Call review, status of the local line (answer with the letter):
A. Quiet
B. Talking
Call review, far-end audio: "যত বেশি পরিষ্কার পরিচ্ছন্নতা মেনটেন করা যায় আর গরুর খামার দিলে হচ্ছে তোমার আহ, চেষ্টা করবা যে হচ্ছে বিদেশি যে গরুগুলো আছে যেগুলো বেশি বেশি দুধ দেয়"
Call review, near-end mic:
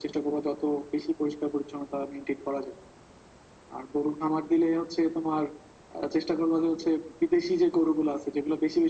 A